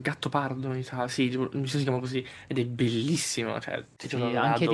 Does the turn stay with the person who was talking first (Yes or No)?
No